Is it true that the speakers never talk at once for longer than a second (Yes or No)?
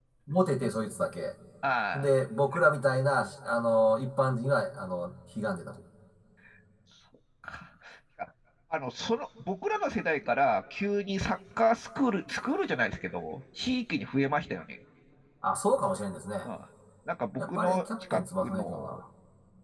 No